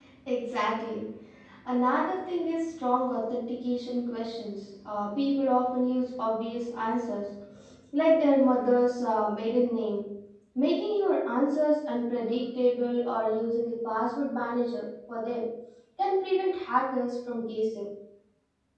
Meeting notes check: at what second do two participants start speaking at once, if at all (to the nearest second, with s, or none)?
none